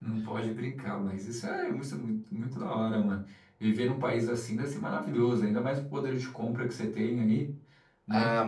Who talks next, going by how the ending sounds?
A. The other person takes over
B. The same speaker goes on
A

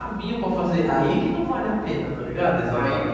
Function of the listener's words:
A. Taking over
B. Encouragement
A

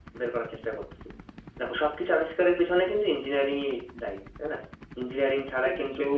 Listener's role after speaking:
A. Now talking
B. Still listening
B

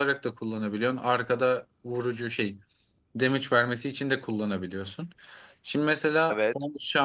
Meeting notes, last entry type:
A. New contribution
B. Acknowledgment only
B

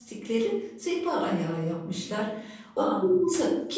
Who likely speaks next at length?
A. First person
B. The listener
A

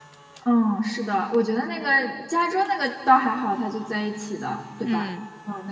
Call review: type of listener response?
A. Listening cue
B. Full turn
A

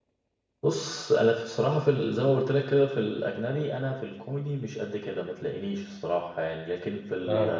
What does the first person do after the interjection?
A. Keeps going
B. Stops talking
A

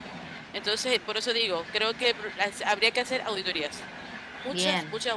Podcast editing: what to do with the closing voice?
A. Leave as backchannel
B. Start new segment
A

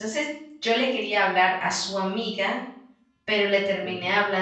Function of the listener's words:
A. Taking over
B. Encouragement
B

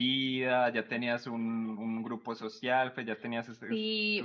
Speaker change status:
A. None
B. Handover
B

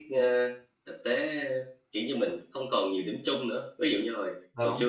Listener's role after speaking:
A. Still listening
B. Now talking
A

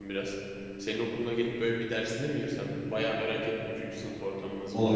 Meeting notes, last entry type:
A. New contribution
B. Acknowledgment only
A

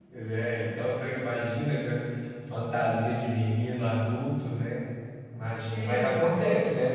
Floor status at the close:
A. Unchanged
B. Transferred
A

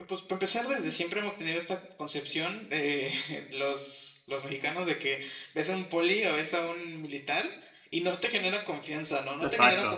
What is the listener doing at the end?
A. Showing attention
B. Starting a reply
B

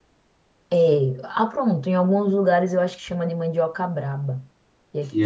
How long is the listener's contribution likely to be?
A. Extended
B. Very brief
A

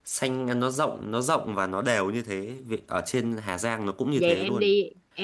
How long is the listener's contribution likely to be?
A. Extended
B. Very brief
A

